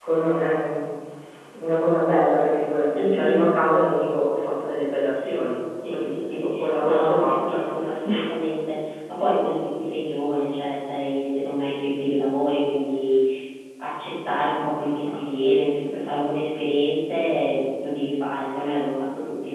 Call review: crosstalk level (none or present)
present